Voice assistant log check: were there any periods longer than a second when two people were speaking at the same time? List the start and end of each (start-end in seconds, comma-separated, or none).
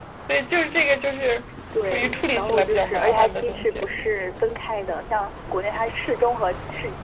1.9-3.8